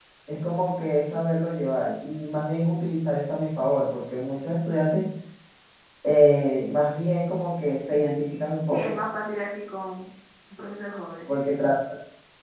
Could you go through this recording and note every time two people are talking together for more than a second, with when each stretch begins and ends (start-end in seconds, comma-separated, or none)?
none